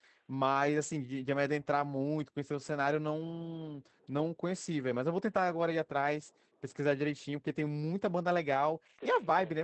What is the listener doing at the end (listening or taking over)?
listening